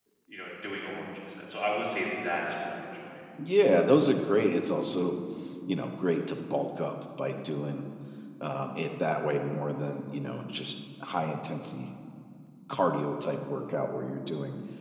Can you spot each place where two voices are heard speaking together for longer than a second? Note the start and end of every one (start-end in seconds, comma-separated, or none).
none